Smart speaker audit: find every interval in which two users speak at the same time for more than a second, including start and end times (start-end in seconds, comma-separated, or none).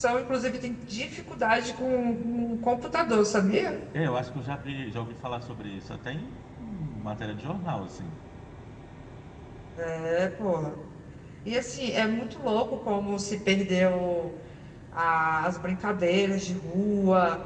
none